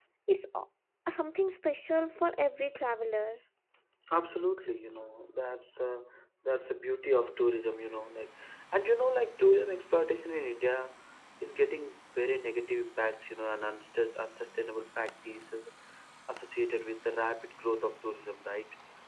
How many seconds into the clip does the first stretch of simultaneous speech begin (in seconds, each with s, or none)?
none